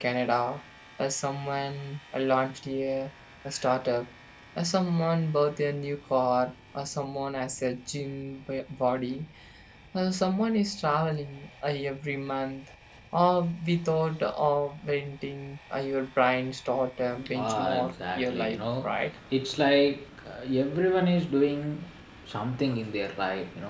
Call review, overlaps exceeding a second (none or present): present